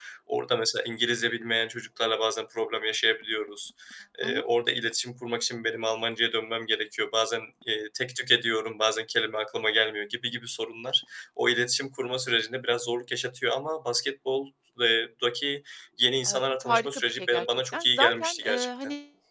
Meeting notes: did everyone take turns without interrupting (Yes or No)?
No